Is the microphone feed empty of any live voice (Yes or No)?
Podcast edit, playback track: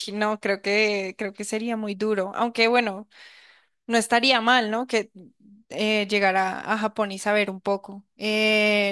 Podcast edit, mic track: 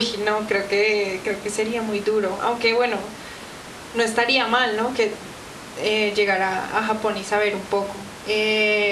Yes